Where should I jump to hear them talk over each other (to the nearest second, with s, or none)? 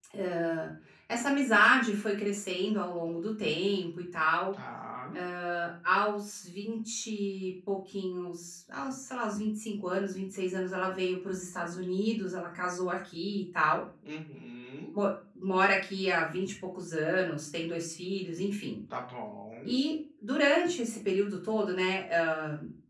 none